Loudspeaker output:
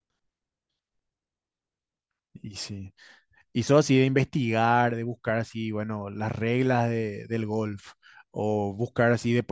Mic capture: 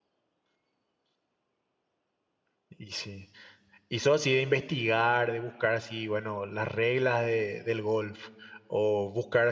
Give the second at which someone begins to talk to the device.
none

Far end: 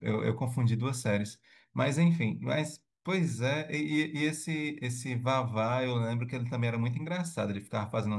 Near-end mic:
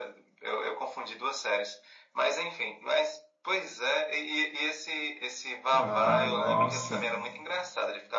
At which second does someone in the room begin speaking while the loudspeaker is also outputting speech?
5.7 s

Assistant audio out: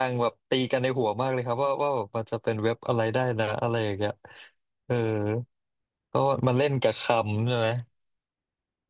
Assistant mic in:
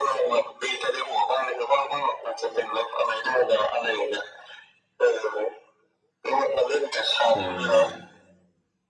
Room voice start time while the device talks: 7.2 s

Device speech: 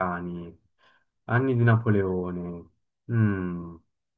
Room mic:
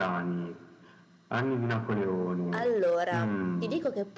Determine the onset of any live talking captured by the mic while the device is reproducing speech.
2.5 s

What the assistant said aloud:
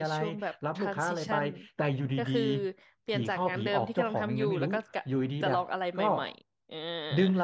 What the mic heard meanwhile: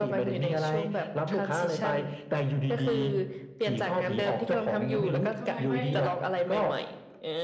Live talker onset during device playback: 5.3 s

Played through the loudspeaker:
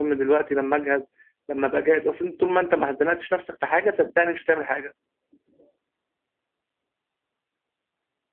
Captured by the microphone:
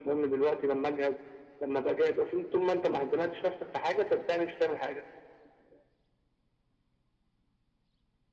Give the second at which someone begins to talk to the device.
none

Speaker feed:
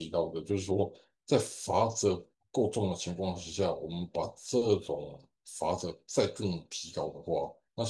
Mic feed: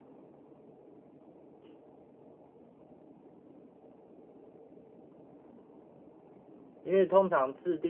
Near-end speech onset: 6.8 s

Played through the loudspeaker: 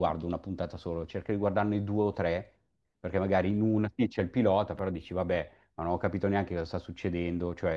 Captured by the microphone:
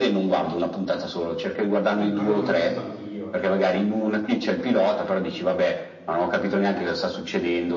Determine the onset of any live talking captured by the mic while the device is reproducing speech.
1.9 s

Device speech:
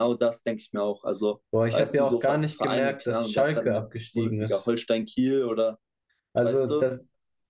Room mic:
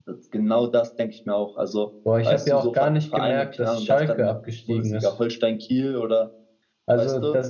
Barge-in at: none

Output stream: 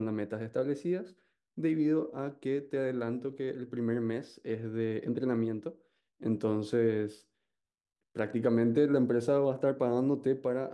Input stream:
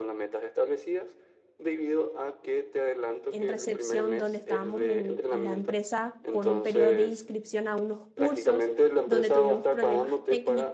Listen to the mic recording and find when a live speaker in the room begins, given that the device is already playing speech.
3.3 s

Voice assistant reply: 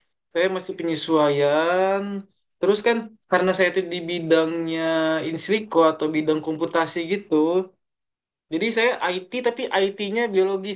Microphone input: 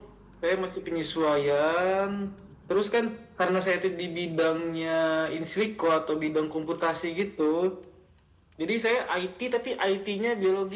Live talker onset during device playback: none

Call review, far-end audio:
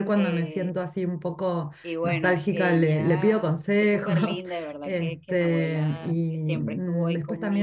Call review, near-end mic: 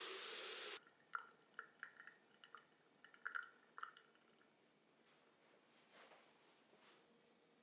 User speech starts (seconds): none

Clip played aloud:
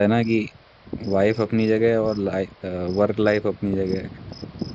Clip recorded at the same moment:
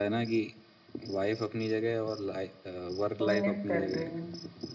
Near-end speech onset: 3.2 s

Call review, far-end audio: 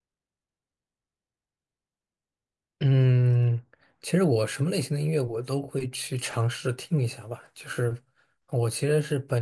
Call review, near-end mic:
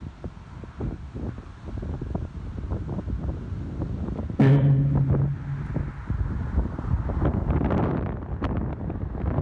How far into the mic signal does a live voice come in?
4.4 s

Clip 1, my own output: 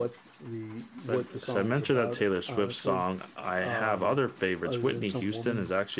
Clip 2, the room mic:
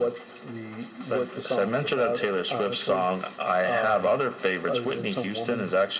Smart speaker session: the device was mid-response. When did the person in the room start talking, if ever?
none

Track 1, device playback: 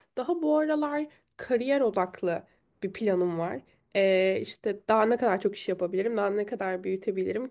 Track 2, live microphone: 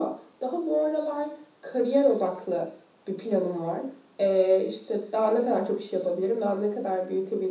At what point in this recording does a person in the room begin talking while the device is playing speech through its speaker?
none

